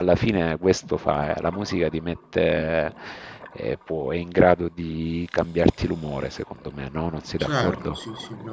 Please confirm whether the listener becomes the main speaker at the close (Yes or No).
Yes